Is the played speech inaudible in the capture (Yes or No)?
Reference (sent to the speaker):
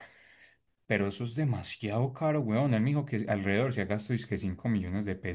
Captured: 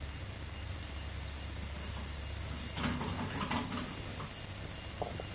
Yes